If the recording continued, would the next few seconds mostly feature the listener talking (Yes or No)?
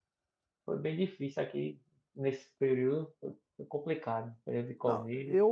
Yes